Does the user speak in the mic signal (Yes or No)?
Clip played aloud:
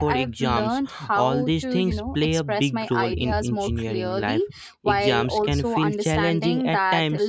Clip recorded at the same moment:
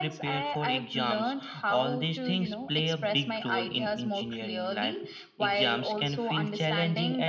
No